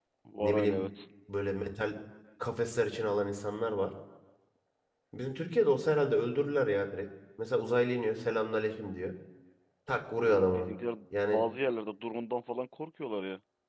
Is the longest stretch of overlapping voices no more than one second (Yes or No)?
Yes